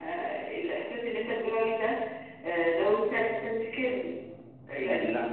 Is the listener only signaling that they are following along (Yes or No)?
Yes